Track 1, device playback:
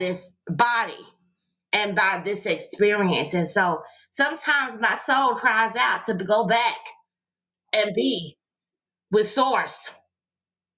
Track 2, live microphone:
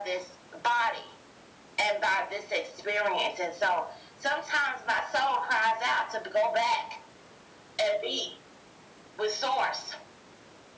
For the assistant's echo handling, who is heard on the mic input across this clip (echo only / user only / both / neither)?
echo only